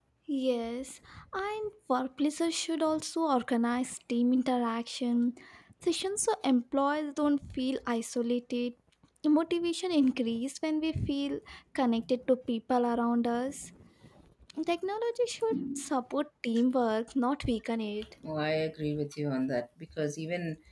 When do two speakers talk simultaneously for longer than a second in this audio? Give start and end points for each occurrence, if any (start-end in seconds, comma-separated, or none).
none